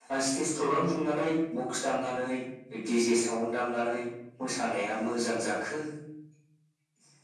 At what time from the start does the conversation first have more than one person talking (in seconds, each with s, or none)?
none